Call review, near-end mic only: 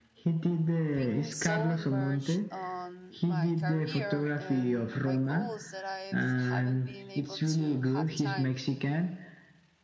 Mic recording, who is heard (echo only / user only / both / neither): both